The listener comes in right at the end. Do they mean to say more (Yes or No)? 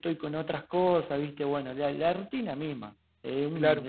Yes